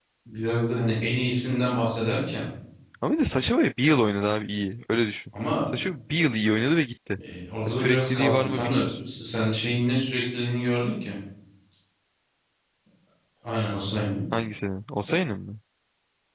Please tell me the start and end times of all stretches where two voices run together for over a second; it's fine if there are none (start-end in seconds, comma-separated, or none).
7.7-9.0